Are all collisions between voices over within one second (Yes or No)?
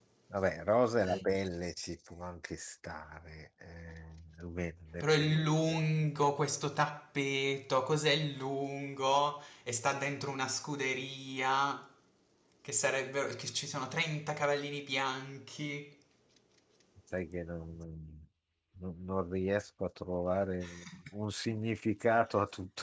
Yes